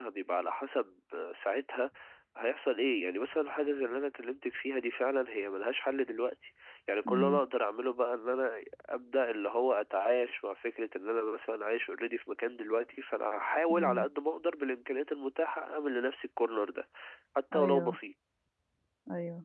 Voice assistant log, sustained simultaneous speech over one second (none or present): none